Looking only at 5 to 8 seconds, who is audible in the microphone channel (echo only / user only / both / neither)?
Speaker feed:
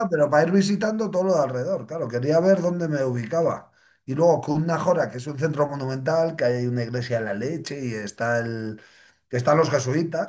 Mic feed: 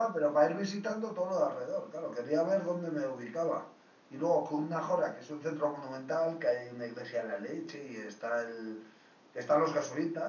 echo only